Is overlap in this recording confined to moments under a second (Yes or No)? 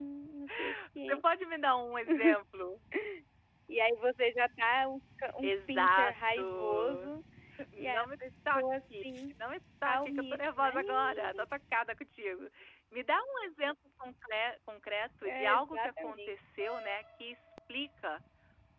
No